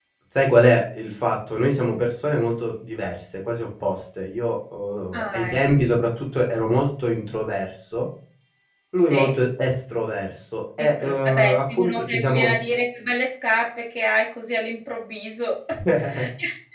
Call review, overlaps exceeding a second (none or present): present